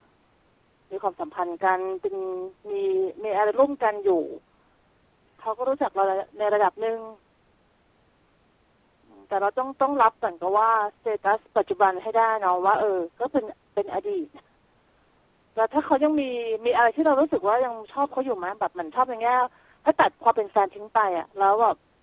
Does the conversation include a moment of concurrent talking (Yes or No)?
No